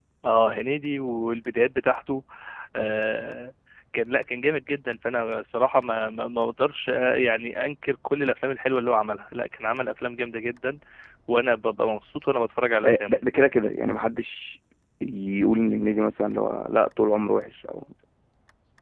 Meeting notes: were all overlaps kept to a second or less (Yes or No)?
Yes